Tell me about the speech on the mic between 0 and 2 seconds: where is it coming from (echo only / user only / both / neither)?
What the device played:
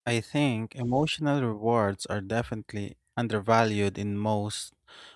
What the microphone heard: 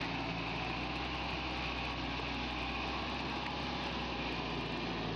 neither